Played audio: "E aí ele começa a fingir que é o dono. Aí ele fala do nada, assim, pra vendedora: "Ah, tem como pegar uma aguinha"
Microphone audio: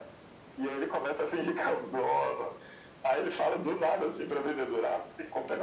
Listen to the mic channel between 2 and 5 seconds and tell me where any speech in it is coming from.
echo only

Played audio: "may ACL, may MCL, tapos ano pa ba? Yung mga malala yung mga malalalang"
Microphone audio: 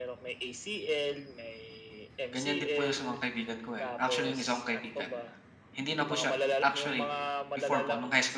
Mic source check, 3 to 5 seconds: both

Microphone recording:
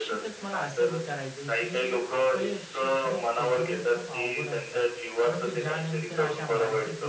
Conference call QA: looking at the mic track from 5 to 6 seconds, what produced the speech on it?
both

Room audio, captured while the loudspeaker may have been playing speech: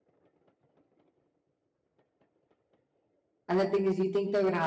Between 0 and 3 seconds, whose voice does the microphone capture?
neither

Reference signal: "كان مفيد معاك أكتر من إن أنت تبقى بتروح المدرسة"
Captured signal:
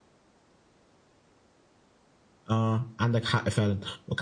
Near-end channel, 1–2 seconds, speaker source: neither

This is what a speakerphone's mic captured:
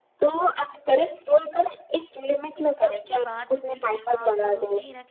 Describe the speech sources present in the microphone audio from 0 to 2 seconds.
echo only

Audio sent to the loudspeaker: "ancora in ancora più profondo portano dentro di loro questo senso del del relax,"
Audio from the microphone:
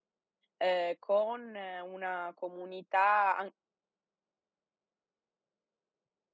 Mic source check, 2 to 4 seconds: user only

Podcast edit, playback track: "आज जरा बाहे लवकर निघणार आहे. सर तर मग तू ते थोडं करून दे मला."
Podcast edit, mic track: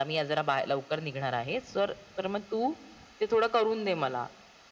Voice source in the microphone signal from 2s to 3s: echo only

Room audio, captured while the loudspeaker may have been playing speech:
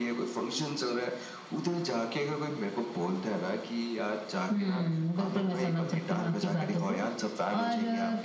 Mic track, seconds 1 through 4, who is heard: echo only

